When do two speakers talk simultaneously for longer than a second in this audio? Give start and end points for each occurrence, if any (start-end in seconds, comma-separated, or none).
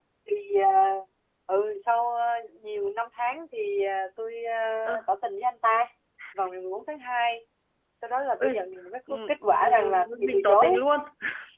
9.1-10.7